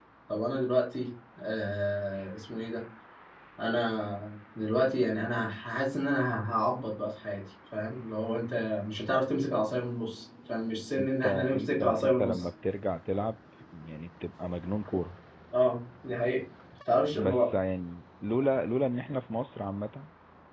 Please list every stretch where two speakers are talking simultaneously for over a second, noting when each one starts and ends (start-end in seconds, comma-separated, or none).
11.0-12.5